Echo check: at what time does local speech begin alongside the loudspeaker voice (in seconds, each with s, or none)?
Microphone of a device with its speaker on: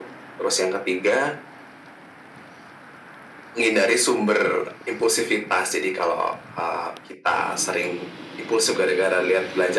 none